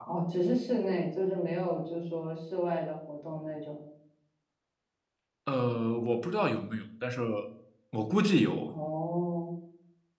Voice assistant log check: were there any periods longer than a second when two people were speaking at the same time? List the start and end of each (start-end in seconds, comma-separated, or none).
none